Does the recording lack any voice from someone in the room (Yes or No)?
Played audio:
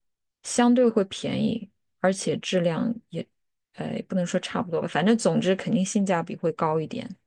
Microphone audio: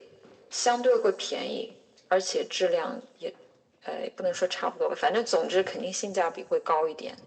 Yes